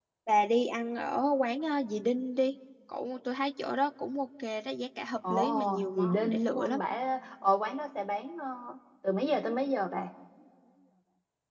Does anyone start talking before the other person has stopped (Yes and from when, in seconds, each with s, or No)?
Yes, from 5.2 s